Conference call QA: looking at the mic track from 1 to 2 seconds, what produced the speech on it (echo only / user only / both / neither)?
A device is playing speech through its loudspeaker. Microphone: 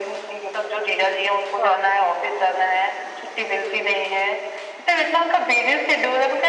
both